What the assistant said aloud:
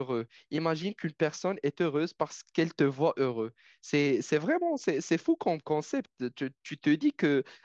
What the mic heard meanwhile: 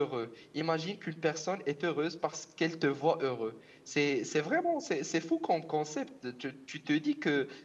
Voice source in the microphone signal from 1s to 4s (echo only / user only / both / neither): echo only